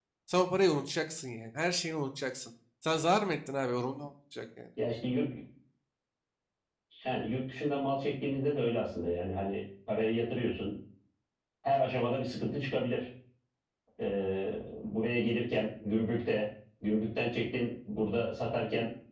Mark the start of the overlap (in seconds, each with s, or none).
none